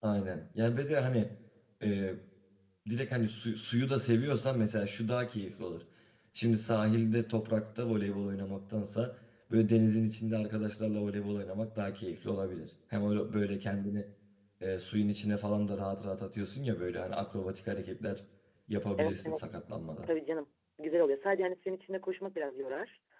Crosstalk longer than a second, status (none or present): none